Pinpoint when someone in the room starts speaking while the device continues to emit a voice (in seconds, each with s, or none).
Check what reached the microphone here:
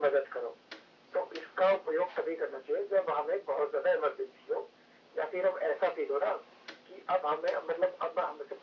none